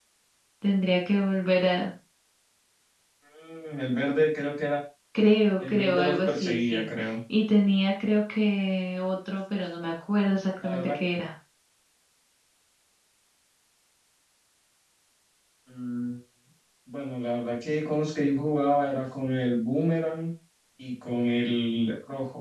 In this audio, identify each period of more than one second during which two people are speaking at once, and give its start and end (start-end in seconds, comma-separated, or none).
5.7-7.1